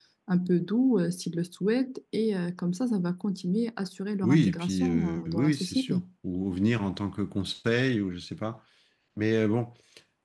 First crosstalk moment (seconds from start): 4.2 s

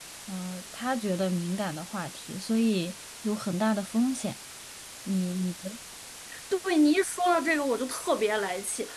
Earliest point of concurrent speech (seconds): none

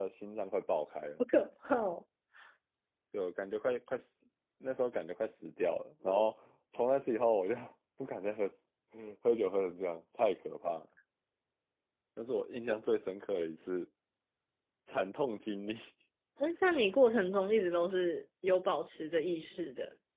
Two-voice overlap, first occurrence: none

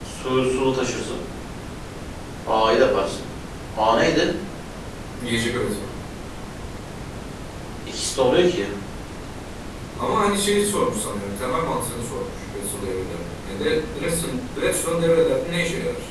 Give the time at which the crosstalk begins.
none

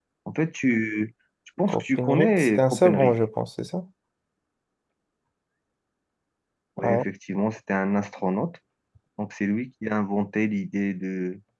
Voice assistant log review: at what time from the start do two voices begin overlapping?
1.7 s

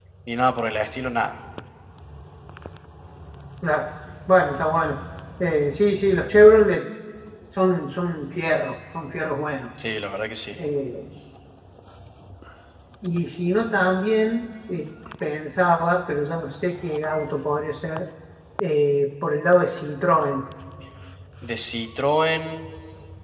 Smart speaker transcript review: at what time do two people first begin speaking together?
none

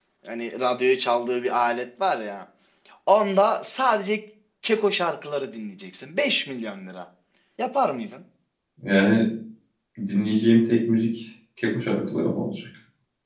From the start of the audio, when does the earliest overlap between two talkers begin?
none

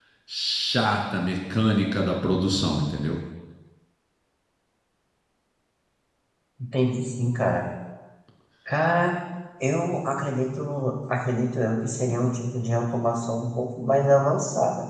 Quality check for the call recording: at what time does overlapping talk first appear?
none

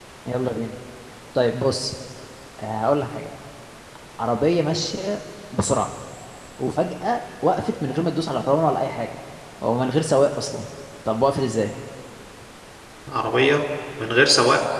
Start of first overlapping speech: none

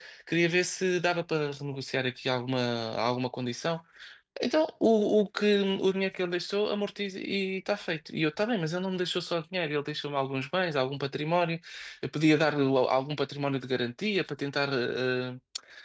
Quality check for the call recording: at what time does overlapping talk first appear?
none

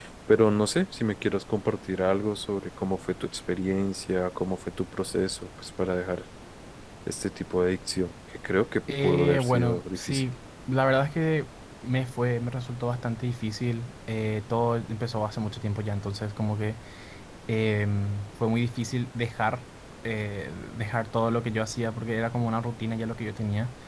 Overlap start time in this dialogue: 8.9 s

